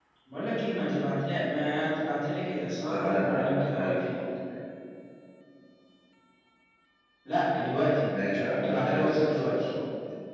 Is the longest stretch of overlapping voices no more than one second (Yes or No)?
No